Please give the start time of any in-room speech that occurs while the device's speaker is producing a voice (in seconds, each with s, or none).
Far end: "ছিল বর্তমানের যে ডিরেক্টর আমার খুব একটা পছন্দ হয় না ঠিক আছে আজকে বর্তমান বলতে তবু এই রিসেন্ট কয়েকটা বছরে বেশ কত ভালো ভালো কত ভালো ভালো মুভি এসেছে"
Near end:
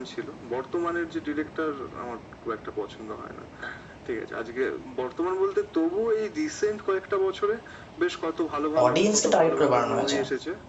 8.8 s